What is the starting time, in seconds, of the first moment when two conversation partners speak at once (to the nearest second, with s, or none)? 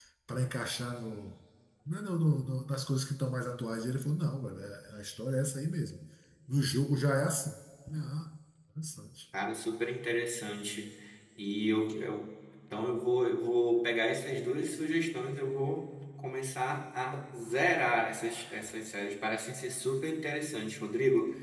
none